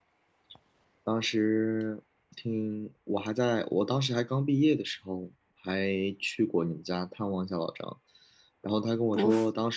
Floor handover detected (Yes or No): No